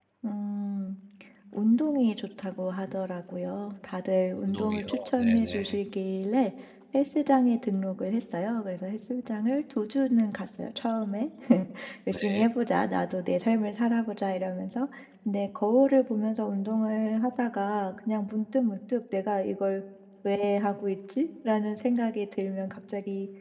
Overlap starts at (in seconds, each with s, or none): 4.3 s